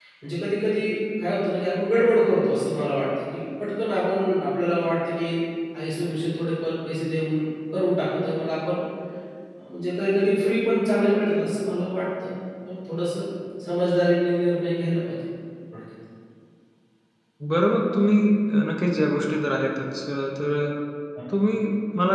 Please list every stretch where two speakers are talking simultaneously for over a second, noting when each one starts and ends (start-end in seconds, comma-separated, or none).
none